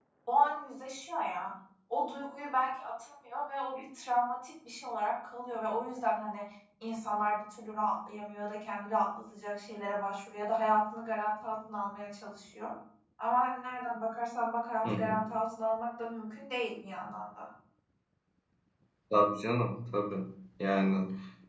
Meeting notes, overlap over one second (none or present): none